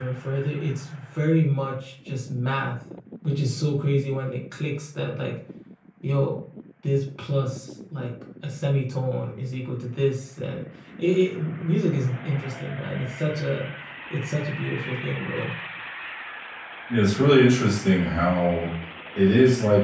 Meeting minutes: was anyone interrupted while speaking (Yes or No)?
No